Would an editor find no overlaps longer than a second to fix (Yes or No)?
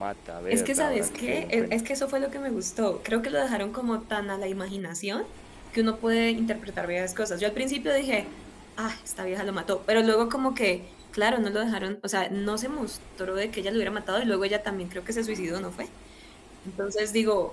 No